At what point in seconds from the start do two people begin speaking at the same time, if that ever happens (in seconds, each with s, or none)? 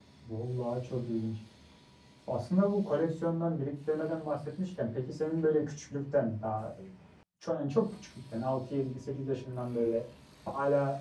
none